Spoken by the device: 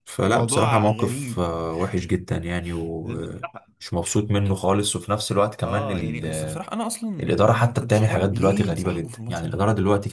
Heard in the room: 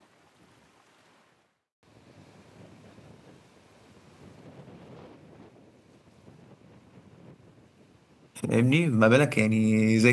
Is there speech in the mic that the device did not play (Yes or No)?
Yes